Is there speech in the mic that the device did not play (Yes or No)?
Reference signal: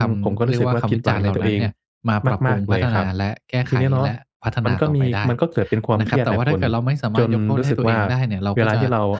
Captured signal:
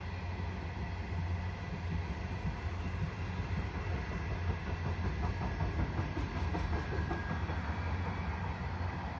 No